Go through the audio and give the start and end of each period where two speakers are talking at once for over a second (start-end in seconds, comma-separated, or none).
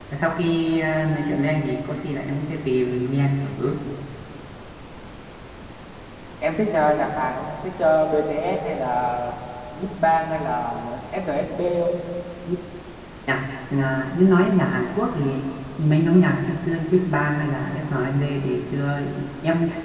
none